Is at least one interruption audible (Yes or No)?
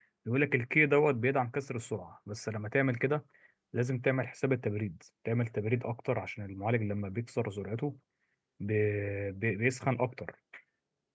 No